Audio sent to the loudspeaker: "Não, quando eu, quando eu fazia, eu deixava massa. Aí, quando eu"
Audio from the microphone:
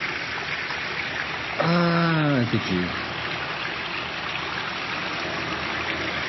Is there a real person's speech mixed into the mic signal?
Yes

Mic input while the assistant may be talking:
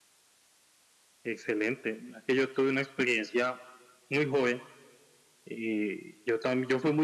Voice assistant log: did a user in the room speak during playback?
No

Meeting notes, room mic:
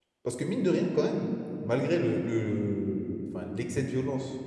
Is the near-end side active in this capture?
Yes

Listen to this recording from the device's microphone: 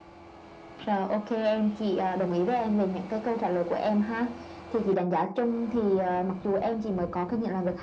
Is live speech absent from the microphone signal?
Yes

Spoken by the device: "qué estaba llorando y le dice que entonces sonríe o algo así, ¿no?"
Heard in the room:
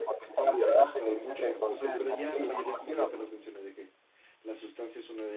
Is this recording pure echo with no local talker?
No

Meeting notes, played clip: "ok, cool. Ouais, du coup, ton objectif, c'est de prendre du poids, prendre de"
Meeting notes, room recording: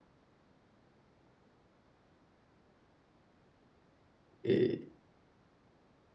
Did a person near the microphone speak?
Yes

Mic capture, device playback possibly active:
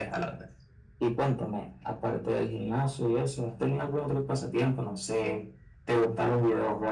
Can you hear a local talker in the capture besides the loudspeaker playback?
No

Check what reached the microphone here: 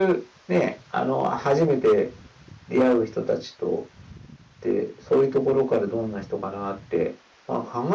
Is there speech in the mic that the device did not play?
No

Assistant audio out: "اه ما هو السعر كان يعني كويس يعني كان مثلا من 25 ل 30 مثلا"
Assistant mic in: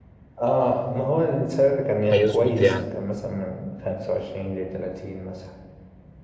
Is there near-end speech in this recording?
Yes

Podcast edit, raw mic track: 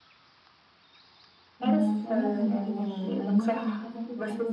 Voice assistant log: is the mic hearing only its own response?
No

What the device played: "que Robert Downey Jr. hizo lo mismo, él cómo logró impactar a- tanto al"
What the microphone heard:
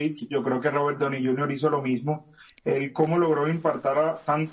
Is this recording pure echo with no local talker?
Yes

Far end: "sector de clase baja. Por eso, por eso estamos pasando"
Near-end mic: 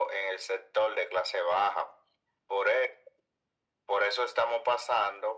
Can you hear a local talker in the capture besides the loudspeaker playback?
No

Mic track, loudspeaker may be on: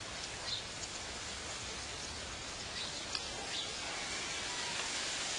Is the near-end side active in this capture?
No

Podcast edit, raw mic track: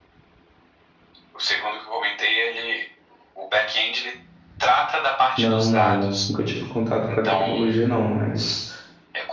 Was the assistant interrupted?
Yes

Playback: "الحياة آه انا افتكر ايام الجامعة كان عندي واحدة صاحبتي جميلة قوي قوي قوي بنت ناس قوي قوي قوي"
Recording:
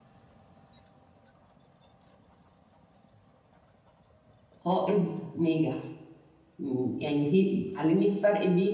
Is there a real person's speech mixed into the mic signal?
Yes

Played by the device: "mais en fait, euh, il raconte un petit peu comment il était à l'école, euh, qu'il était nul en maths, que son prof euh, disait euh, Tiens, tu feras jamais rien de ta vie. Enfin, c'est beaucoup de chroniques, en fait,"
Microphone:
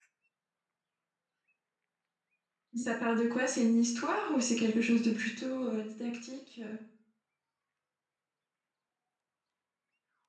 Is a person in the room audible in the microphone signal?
Yes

